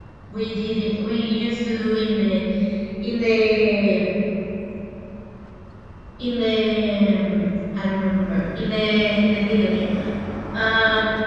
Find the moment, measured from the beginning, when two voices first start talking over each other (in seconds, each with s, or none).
none